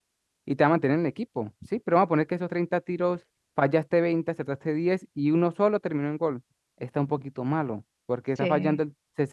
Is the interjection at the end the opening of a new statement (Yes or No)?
No